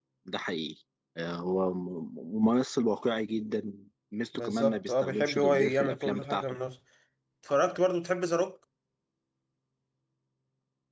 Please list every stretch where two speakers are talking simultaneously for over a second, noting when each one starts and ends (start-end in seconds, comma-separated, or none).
4.3-6.6